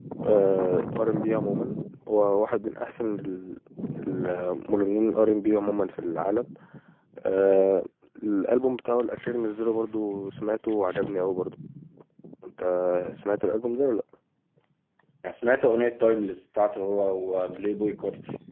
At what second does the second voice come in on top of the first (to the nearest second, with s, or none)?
none